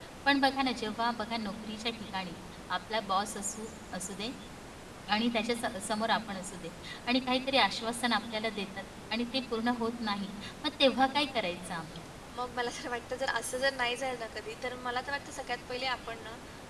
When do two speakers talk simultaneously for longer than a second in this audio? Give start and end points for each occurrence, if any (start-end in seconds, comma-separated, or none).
none